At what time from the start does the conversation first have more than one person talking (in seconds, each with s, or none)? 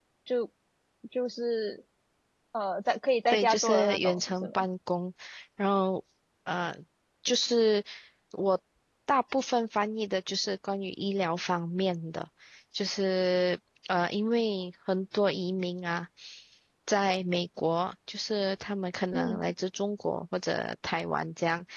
3.3 s